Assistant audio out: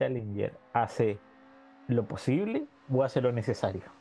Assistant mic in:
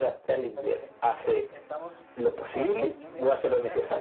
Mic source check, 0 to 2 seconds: both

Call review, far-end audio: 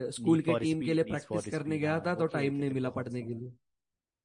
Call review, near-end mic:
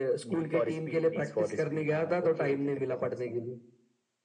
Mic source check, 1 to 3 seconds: echo only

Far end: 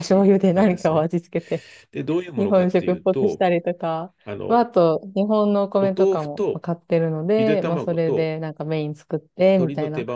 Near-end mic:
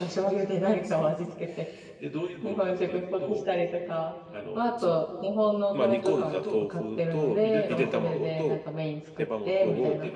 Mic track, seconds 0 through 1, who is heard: echo only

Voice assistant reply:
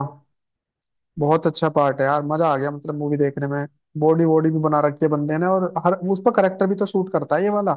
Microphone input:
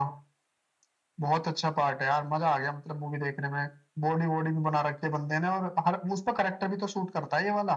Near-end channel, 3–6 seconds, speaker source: echo only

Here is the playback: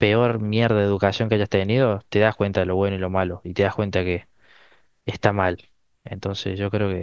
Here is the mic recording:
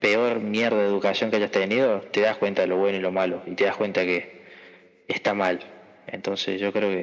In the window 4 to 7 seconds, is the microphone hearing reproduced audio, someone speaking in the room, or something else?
echo only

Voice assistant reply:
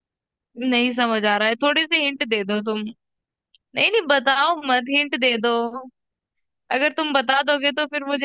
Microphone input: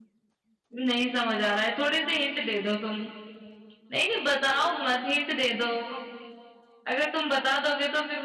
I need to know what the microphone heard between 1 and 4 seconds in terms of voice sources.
echo only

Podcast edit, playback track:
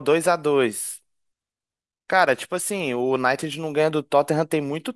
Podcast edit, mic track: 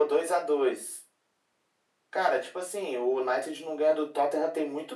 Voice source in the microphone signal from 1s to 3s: echo only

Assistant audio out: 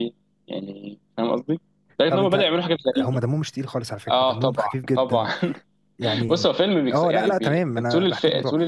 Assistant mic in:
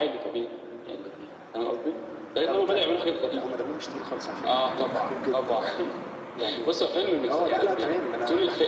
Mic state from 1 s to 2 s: echo only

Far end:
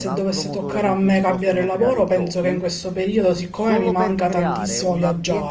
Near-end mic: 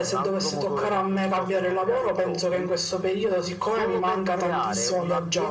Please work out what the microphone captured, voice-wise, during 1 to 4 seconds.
echo only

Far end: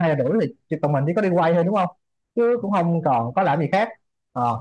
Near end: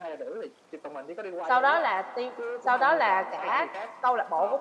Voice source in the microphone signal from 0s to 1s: echo only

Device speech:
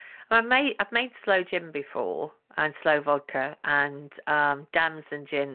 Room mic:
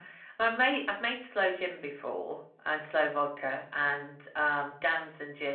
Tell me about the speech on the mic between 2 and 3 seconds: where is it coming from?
echo only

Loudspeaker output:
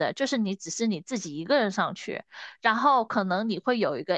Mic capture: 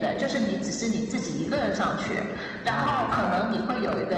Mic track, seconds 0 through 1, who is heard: echo only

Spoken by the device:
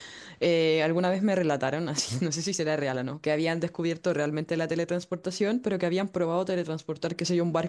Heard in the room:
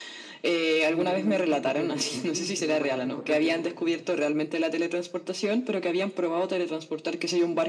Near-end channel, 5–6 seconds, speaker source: echo only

